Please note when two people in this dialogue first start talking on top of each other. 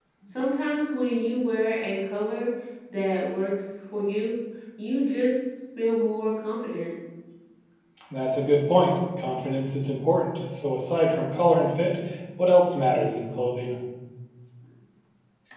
none

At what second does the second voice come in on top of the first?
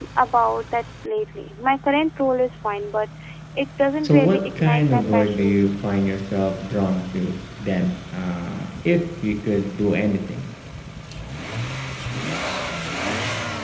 4.0 s

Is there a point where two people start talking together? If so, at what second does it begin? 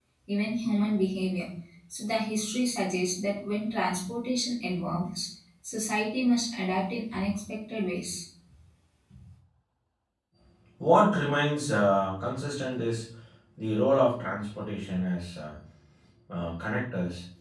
none

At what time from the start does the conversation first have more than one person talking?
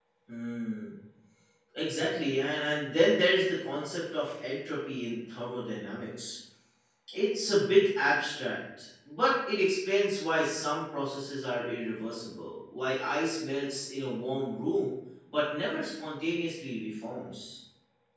none

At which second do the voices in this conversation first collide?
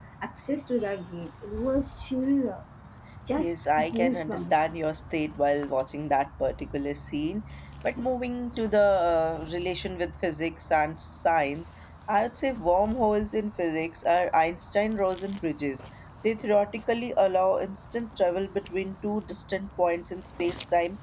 3.4 s

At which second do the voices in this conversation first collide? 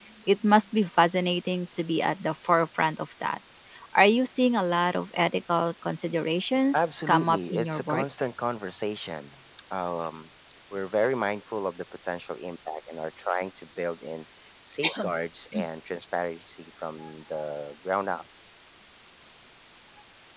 6.7 s

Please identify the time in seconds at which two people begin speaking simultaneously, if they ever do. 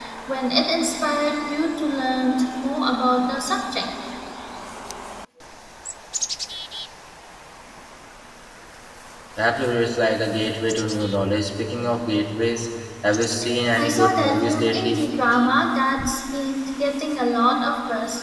13.8 s

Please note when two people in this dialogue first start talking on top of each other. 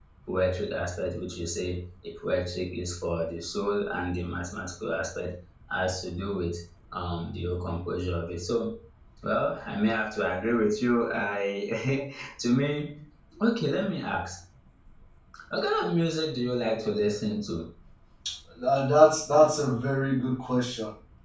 none

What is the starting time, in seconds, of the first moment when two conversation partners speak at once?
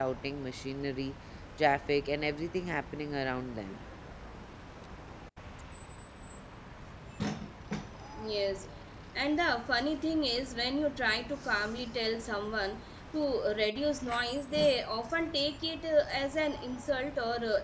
none

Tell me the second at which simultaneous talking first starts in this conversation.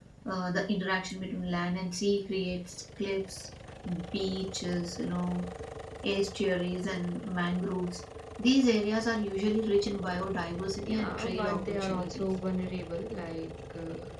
10.8 s

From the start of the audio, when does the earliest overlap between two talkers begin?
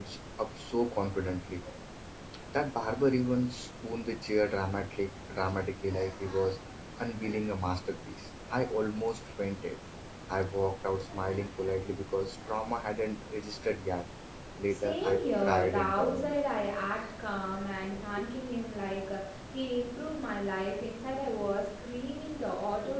14.7 s

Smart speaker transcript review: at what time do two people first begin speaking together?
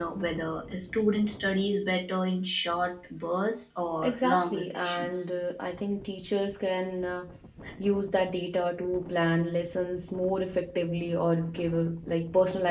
4.0 s

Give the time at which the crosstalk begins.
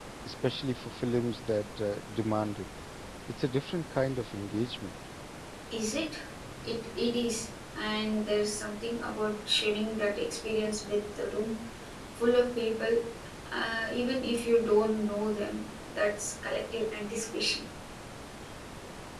none

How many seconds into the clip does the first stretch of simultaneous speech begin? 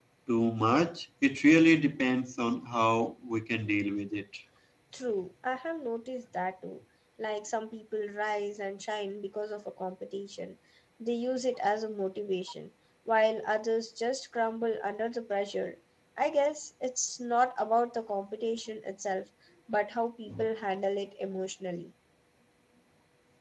none

